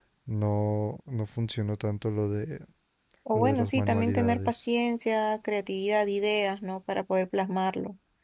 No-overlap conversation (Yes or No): No